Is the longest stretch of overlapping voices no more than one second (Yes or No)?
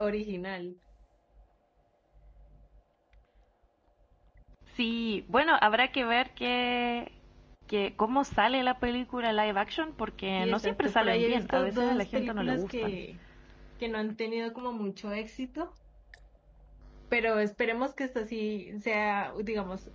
No